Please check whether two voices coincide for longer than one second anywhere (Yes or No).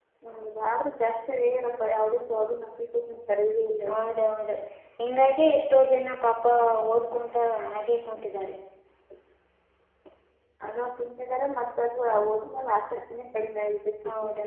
No